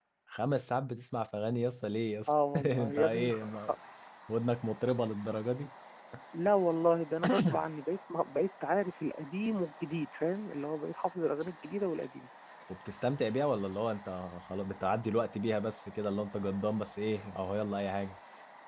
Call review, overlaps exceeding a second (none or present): present